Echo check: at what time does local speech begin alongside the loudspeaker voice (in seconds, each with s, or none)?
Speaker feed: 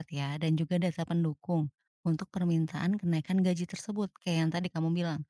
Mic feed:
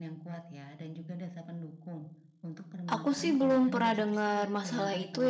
2.9 s